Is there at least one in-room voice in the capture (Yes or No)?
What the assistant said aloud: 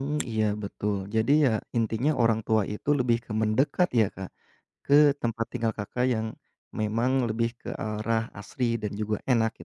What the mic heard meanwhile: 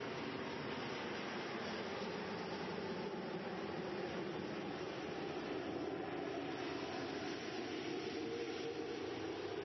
No